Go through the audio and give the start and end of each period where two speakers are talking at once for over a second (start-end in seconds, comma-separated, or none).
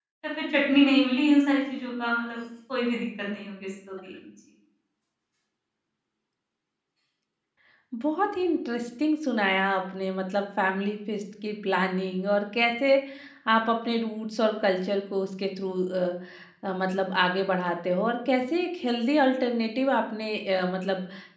none